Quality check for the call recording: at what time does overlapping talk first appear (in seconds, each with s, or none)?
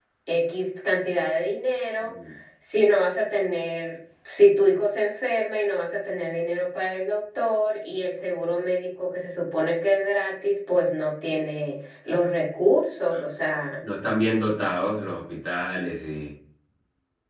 none